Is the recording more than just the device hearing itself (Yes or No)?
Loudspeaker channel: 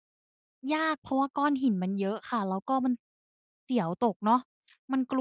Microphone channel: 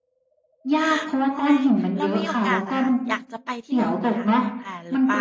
Yes